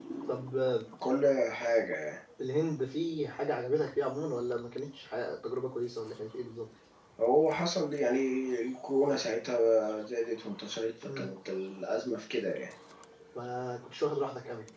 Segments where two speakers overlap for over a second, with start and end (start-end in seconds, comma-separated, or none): none